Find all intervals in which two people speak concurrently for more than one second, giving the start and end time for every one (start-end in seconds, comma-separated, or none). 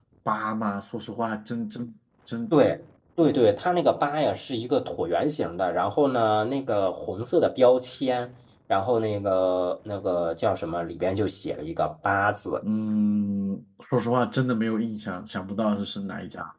none